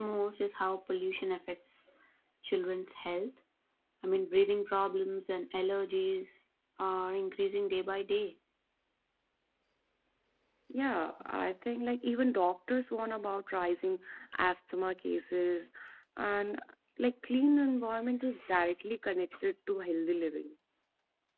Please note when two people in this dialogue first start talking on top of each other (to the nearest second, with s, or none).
none